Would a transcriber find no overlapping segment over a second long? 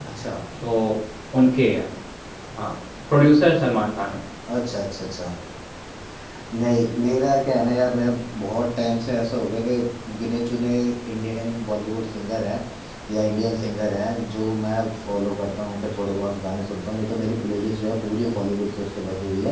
Yes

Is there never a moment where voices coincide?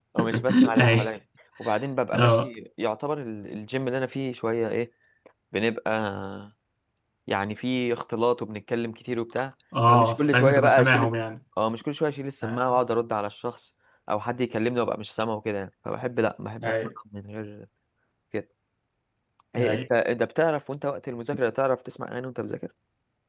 No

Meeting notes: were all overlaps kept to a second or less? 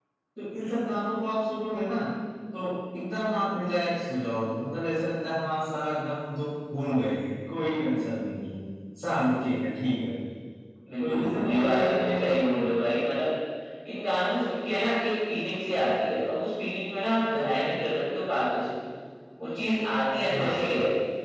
No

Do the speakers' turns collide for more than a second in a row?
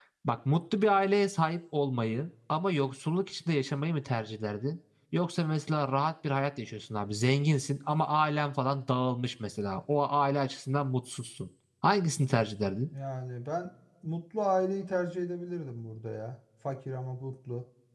No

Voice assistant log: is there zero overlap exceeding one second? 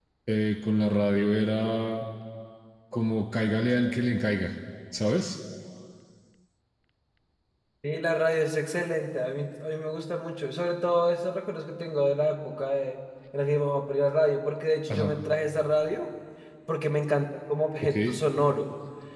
Yes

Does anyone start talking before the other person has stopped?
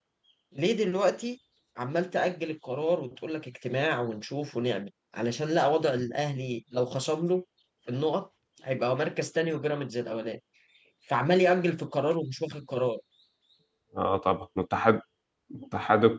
No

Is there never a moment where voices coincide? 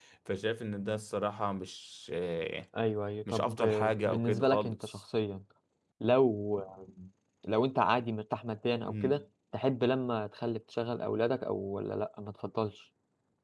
No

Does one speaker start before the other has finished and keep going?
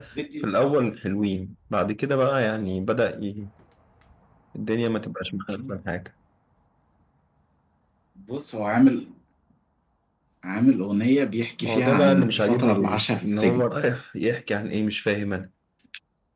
Yes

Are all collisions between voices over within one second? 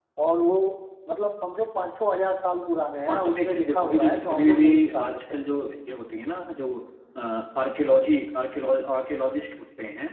No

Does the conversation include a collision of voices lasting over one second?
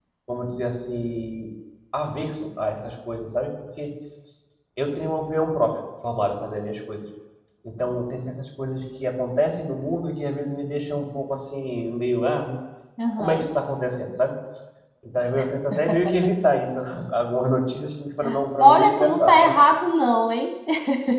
Yes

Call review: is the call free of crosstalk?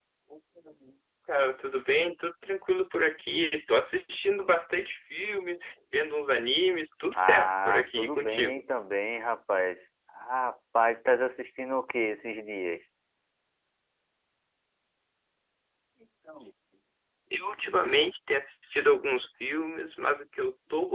No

